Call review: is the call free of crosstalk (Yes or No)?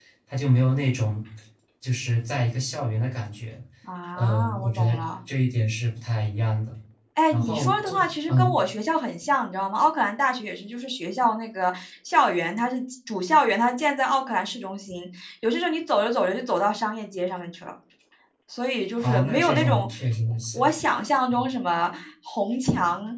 No